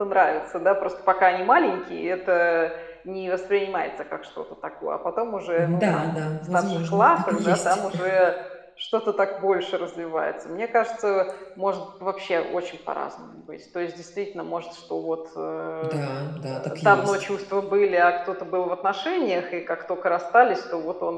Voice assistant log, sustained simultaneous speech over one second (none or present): present